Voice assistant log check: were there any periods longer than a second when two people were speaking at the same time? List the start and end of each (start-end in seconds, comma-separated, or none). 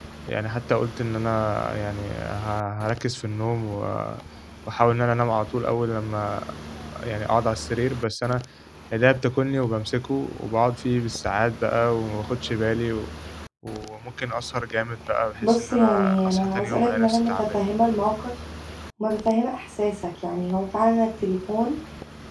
15.4-17.6